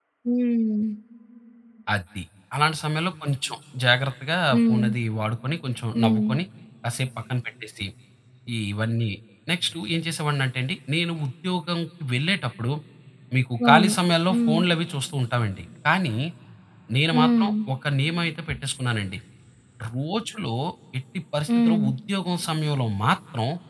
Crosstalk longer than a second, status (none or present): none